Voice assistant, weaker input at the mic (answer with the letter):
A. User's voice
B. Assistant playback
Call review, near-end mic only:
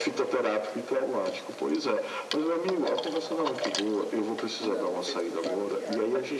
A